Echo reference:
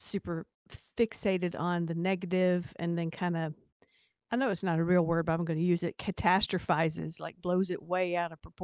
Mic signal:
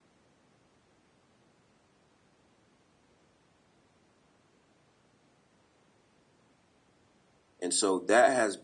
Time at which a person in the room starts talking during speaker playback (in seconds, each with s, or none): 7.6 s